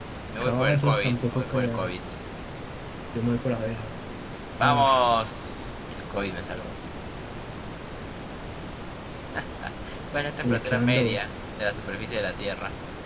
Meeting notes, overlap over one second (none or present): present